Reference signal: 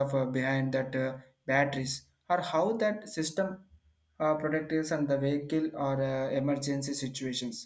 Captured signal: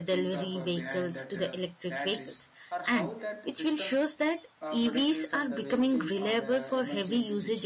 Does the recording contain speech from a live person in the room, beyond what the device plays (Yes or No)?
Yes